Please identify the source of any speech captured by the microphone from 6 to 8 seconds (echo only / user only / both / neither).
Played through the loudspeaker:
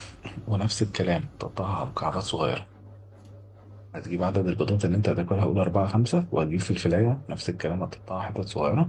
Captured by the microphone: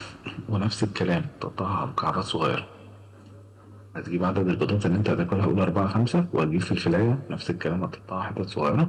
echo only